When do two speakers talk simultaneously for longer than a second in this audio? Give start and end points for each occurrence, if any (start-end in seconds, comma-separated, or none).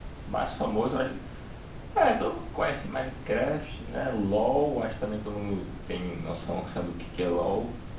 none